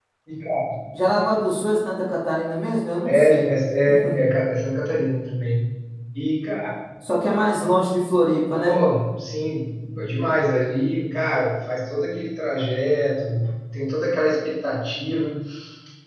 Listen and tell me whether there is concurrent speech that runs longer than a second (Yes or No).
No